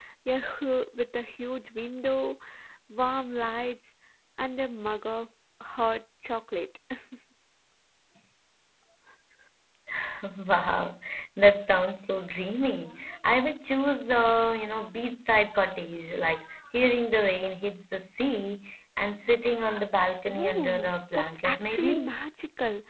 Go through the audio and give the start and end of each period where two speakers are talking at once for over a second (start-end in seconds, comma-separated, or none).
20.3-22.1